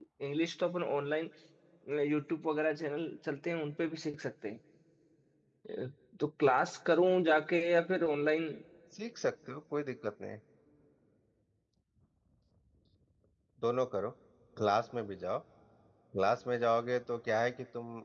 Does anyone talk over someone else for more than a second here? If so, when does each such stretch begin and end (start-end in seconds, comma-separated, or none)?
none